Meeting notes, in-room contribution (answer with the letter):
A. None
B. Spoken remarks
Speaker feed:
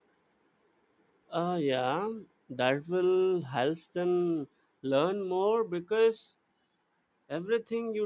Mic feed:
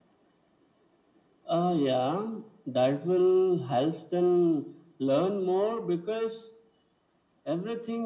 A